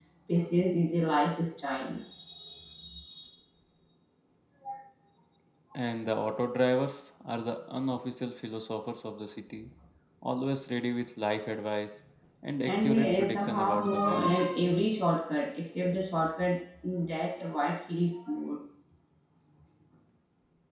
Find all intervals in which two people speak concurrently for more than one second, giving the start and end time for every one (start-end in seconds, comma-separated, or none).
12.7-14.3